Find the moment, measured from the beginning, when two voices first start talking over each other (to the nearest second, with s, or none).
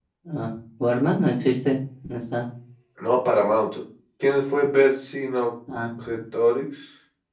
none